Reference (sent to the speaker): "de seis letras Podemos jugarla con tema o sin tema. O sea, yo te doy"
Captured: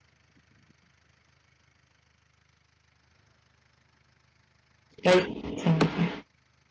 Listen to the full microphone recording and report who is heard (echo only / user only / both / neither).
user only